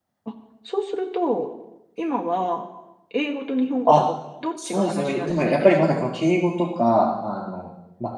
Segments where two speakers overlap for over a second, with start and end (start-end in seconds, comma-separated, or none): 4.7-6.0